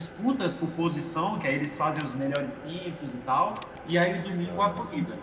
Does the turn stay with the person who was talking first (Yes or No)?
Yes